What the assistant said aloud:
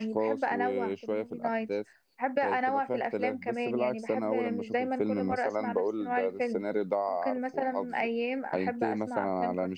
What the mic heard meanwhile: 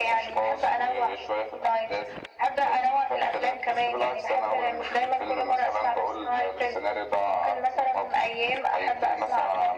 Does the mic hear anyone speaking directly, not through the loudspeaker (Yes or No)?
No